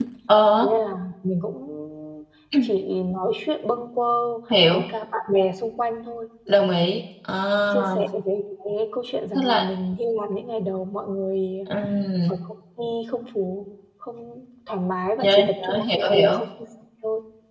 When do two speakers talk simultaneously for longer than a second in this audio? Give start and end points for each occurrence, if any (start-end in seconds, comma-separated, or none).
15.2-16.4